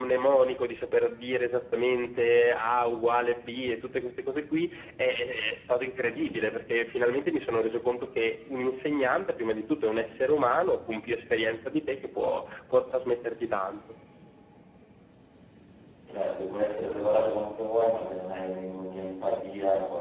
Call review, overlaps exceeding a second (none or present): none